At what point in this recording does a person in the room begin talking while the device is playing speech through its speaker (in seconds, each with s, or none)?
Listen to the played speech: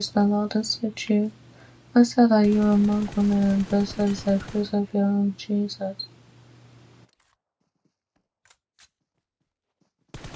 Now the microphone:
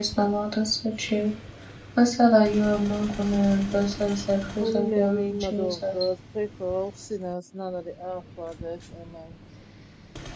4.6 s